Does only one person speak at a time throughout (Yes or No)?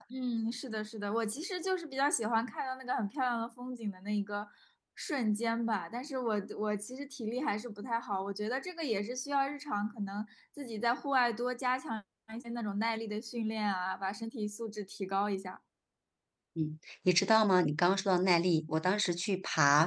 Yes